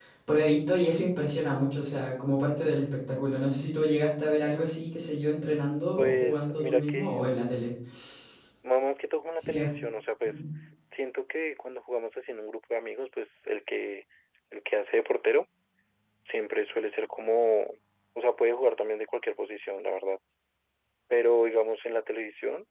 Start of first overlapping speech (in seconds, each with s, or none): 6.0 s